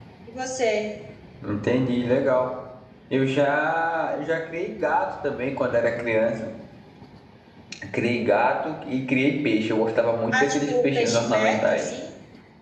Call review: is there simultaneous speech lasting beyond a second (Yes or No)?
Yes